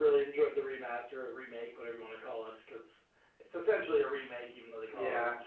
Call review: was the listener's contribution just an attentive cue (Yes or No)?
No